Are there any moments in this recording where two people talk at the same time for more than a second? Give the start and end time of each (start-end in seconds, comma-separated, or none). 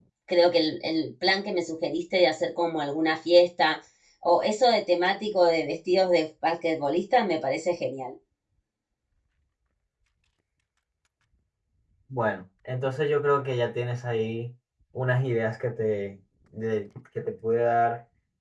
none